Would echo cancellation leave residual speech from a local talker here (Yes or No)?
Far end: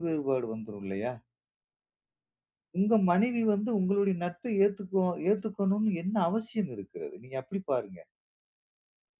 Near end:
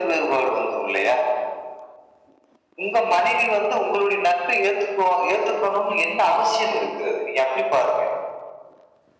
No